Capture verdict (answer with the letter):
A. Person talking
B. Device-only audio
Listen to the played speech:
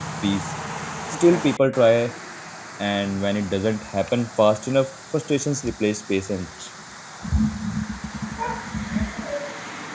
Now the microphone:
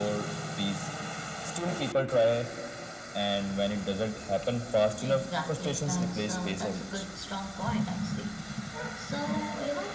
A